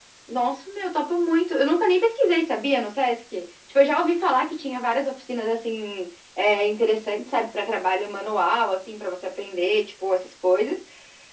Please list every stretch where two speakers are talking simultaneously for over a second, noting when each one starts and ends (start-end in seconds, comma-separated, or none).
none